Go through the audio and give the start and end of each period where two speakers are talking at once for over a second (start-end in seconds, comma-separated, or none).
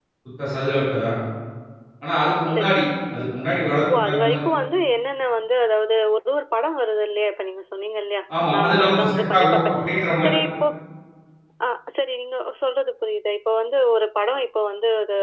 8.5-9.8